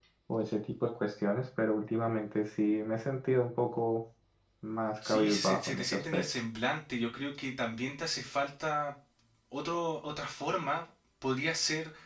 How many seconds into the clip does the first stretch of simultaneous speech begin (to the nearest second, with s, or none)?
5 s